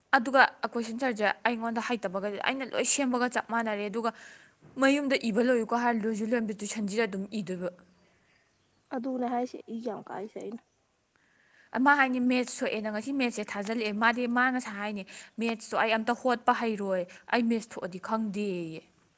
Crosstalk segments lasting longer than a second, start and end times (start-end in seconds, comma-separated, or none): none